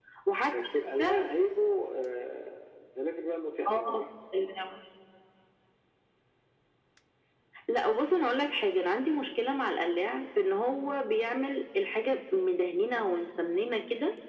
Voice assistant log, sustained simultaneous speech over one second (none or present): none